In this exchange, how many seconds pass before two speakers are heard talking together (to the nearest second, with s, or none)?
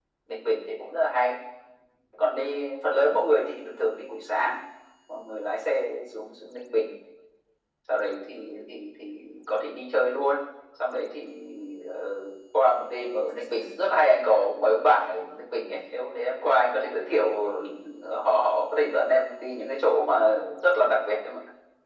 none